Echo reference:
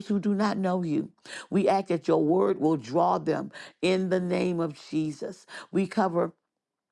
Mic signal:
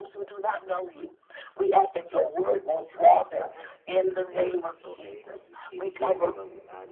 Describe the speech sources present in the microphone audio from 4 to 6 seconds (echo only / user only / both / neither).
both